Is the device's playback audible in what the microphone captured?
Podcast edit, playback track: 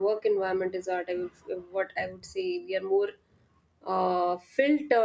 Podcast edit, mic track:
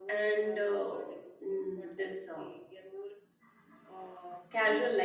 Yes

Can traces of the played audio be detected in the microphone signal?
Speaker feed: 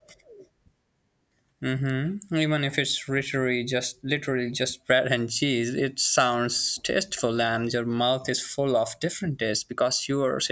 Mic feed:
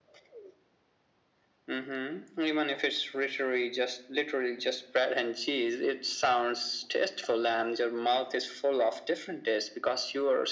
Yes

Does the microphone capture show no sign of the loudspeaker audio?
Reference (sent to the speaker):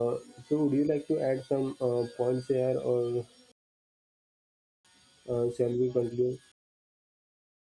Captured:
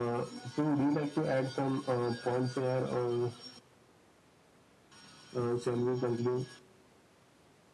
No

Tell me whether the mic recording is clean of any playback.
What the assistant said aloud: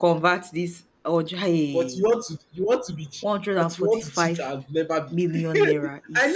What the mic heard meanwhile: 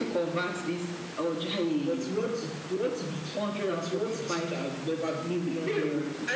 No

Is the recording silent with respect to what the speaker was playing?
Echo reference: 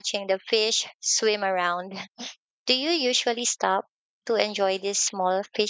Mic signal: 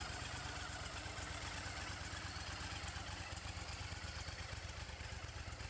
Yes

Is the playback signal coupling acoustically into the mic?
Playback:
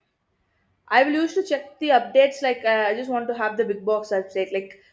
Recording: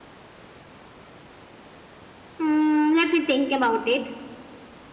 No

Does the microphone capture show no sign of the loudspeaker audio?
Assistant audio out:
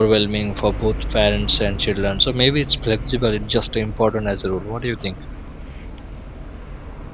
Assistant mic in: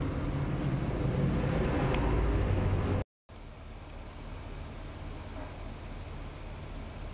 Yes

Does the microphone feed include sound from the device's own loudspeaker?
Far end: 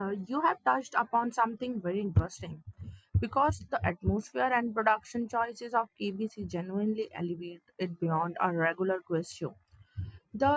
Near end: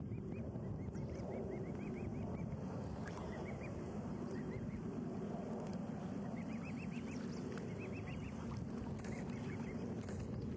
No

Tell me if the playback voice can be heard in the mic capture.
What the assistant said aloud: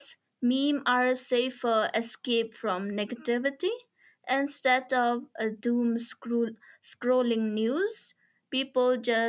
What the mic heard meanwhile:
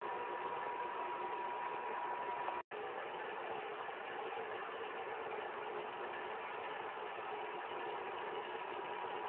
No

